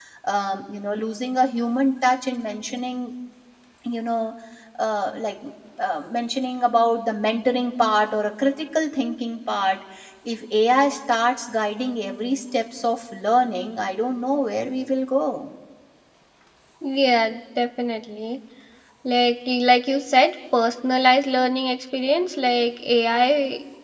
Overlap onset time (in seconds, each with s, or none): none